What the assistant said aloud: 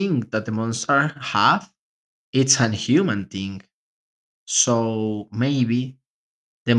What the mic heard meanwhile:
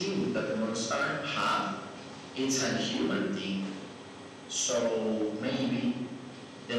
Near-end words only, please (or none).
none